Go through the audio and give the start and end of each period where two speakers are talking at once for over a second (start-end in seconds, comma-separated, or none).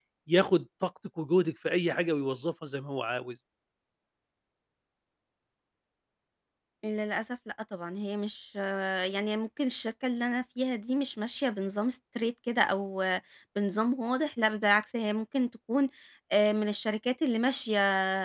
none